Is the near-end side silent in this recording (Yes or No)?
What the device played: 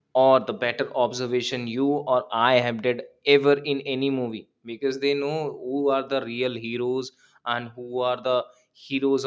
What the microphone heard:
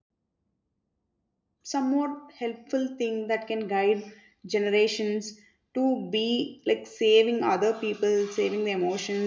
No